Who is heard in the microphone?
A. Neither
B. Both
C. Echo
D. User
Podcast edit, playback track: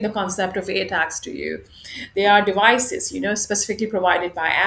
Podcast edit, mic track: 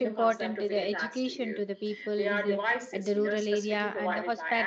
B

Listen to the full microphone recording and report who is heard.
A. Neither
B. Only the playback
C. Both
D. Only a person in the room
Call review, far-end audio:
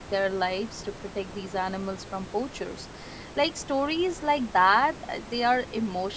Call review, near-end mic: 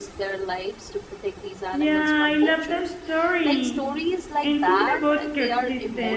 C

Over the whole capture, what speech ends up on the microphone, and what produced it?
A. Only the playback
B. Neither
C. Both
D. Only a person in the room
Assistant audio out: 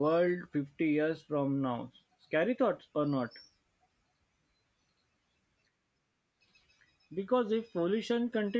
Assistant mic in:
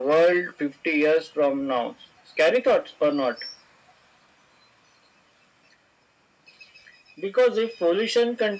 A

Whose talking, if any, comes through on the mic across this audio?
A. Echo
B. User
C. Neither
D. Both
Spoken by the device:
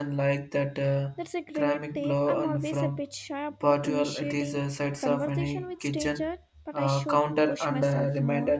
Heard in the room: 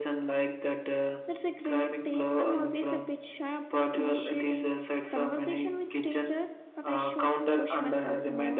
A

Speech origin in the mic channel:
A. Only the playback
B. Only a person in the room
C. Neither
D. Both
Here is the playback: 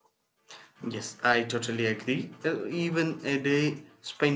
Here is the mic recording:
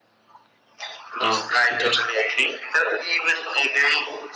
D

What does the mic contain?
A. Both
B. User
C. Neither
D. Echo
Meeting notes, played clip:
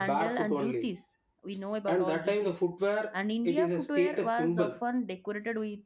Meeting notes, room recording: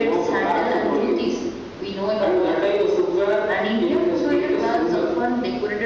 D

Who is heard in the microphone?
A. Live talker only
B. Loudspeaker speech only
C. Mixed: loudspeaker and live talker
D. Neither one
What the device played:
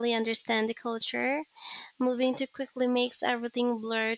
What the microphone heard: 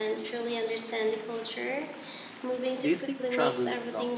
C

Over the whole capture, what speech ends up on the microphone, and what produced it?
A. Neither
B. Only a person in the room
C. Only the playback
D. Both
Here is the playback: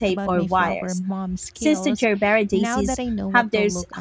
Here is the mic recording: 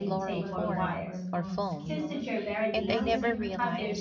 D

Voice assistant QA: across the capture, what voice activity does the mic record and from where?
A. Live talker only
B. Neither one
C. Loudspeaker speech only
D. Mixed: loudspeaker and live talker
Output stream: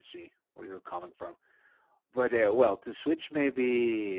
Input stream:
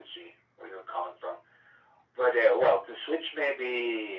C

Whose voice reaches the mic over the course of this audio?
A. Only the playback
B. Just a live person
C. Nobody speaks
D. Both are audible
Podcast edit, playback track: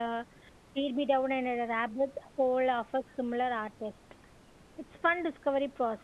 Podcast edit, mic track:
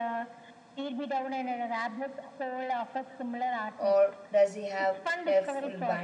D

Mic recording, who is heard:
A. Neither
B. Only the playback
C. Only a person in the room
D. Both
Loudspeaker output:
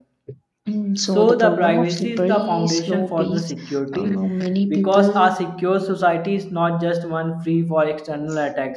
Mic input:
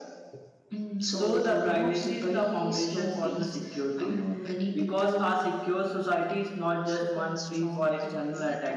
D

